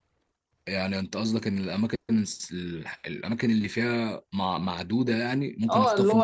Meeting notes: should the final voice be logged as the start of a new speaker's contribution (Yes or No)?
Yes